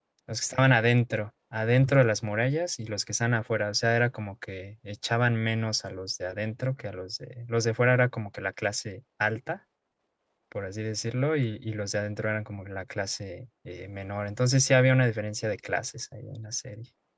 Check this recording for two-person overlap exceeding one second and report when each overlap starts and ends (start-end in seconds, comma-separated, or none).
none